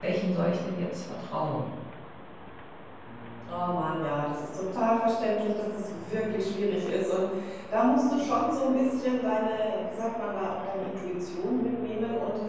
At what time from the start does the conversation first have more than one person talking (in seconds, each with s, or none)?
none